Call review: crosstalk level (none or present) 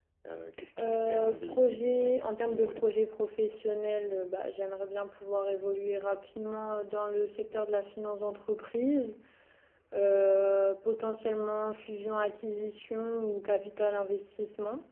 present